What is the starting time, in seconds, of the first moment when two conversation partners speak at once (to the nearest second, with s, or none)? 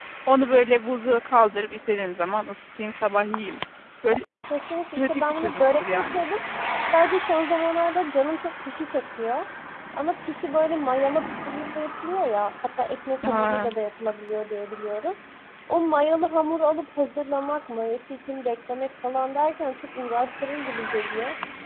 5 s